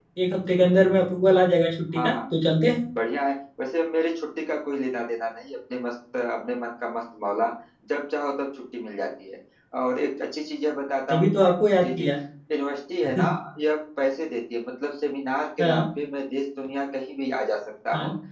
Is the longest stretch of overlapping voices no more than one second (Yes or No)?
Yes